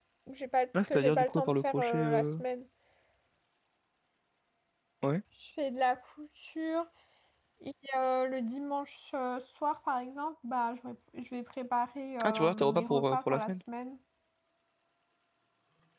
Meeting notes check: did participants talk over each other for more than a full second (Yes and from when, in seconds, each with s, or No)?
Yes, from 0.9 s